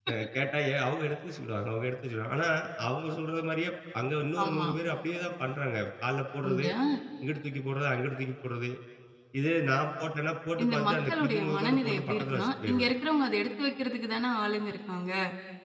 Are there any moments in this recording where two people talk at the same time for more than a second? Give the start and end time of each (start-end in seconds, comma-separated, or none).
10.6-12.9